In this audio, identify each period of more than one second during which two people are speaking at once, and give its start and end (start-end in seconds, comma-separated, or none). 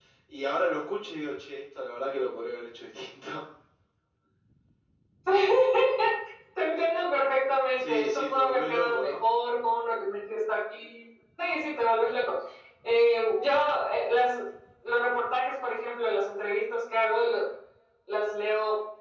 7.8-9.2